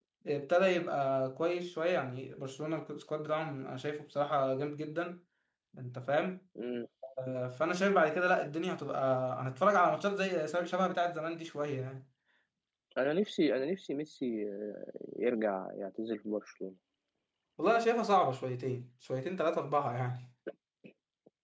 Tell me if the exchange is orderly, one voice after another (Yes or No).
Yes